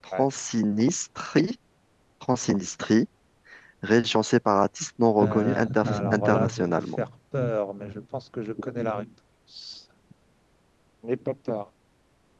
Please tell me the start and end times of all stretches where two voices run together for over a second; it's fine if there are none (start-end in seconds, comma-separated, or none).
5.2-6.8